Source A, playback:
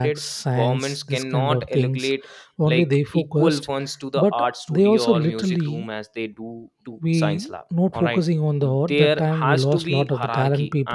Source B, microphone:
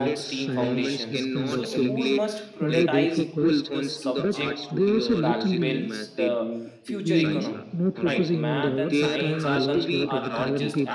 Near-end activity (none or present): present